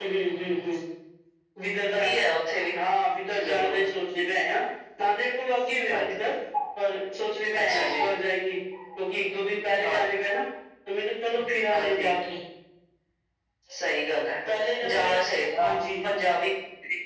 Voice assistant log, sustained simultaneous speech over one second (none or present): none